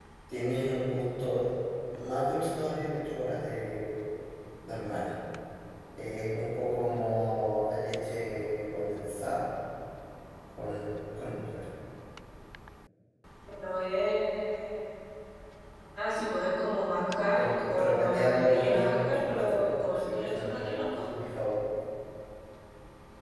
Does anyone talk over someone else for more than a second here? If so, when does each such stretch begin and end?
17.4-20.9

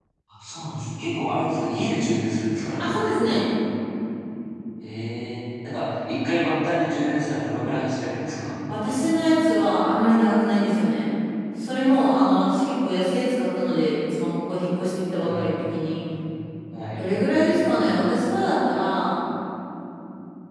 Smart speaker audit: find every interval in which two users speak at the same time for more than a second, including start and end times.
none

